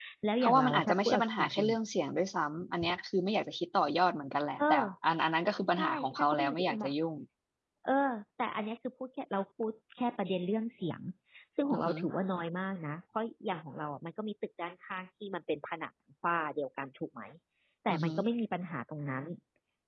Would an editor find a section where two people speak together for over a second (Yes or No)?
Yes